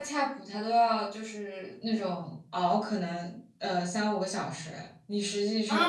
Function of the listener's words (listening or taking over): taking over